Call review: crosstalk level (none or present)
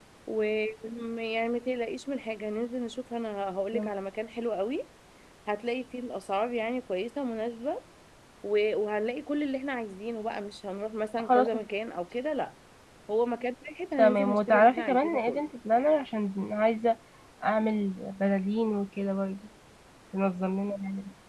present